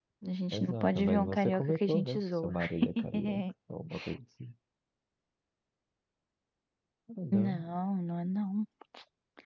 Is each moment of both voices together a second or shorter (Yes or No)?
No